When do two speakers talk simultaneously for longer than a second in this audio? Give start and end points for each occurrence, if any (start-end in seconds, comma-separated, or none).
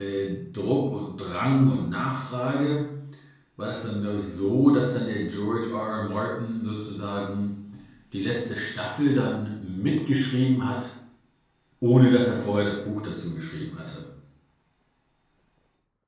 none